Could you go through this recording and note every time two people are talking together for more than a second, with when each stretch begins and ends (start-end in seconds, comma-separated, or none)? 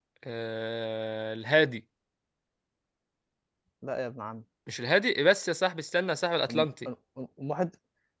none